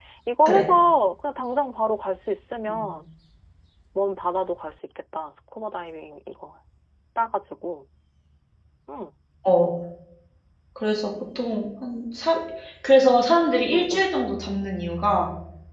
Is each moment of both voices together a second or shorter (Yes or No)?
Yes